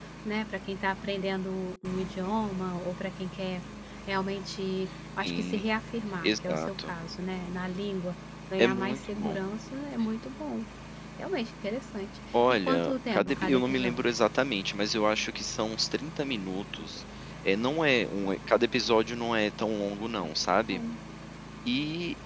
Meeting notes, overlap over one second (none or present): present